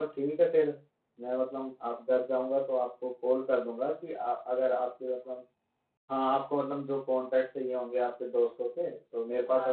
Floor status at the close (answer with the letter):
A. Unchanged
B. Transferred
B